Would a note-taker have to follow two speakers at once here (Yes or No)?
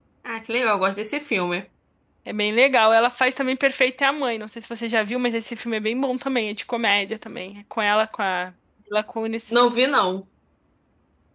No